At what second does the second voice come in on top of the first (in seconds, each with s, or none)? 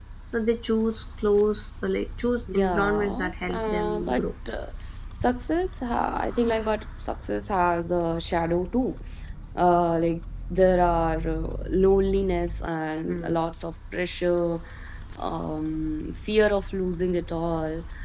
2.5 s